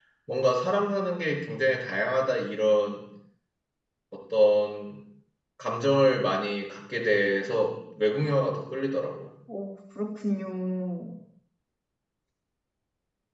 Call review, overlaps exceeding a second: none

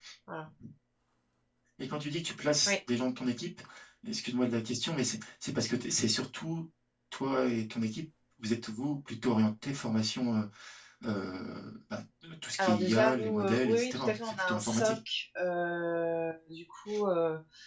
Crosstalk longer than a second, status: present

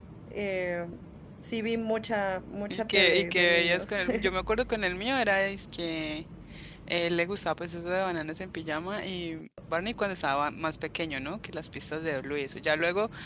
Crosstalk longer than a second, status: present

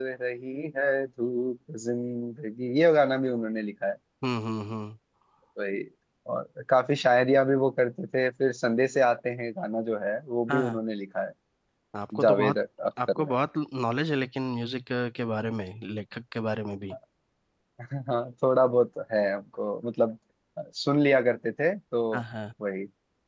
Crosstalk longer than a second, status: none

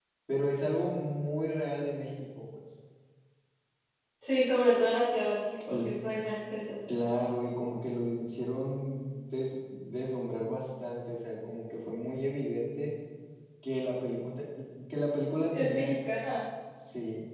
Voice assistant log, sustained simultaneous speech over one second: none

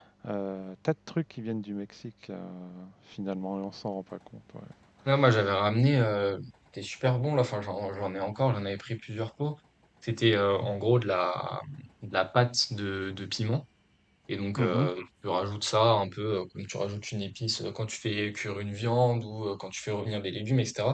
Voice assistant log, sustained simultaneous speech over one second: none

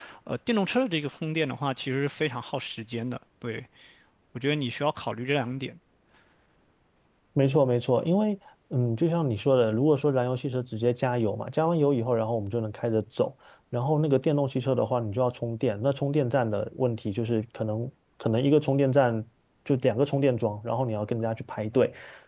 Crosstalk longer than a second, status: none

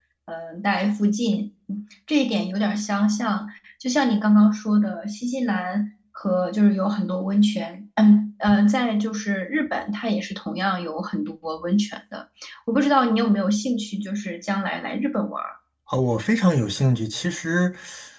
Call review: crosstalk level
none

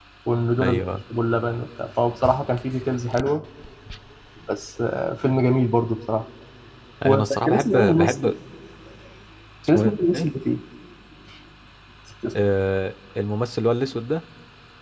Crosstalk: present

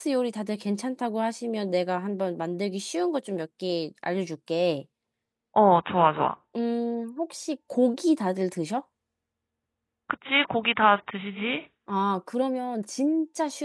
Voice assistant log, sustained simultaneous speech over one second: none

